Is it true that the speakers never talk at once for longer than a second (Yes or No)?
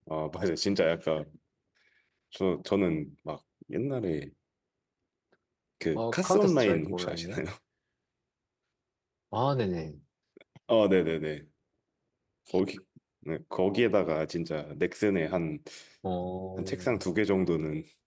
No